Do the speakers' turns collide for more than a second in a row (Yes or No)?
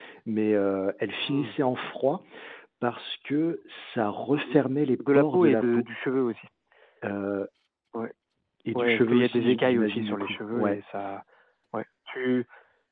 Yes